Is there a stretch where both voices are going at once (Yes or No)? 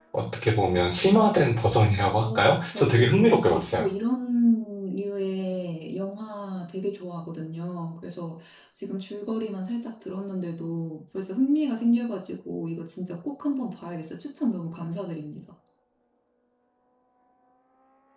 Yes